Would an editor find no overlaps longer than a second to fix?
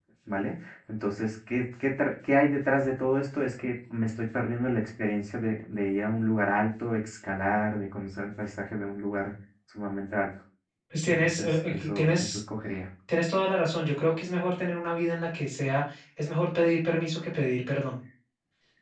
No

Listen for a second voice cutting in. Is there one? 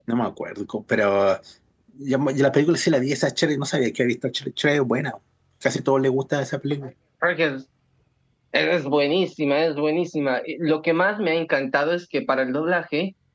No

